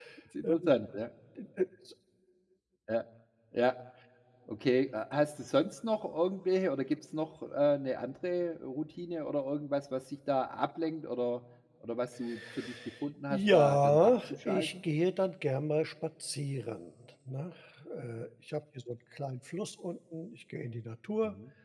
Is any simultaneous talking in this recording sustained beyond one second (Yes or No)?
Yes